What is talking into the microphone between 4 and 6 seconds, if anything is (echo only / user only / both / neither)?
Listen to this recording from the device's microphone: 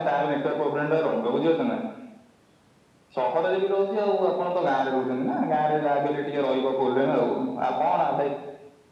echo only